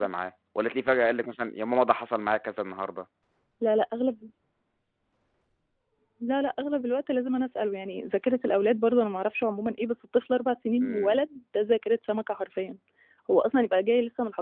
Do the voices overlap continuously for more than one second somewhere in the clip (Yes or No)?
No